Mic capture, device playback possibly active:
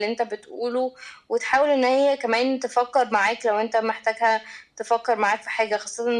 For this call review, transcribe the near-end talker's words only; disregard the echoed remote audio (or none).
none